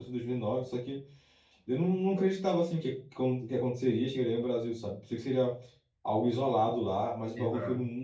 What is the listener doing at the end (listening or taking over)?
listening